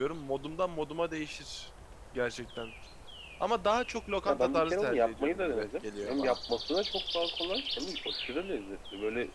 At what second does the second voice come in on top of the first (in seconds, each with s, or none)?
4.3 s